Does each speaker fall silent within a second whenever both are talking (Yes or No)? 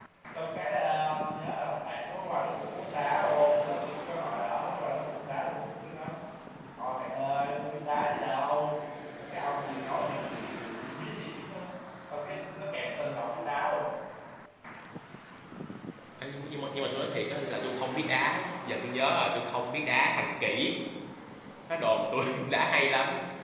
Yes